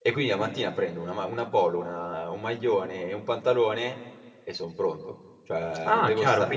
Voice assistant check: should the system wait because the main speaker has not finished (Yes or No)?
No